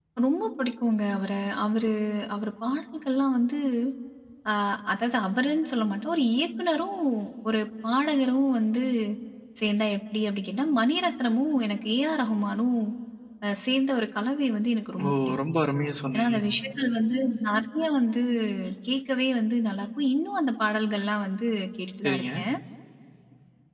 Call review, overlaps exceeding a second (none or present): none